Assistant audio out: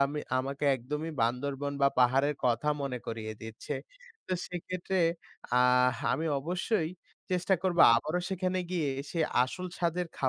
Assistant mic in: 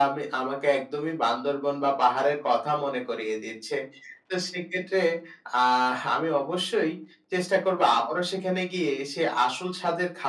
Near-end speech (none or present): none